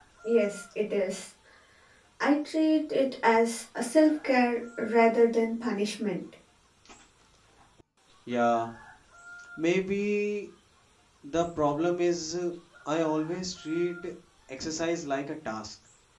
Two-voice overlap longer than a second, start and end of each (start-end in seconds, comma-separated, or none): none